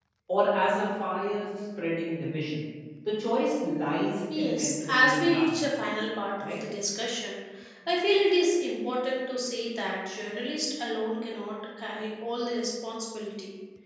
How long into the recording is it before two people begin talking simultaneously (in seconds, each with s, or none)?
4.3 s